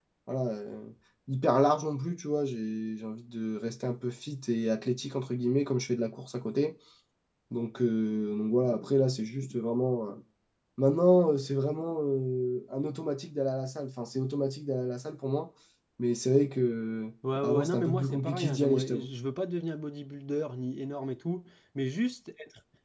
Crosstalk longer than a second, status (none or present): present